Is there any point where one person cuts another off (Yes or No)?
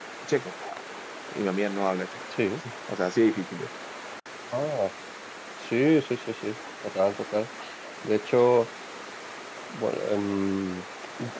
No